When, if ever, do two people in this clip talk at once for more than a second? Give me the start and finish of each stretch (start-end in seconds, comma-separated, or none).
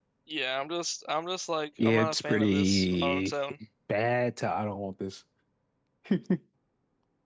1.8-3.3